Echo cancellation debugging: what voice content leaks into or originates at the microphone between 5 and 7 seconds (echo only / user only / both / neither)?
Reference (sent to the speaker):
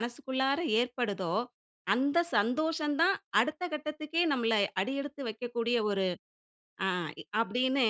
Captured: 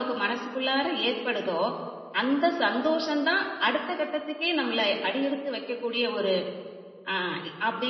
echo only